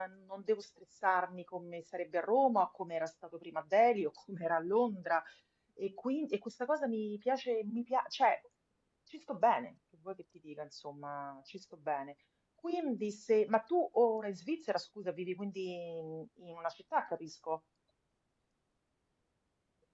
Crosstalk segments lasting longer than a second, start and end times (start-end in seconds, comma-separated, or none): none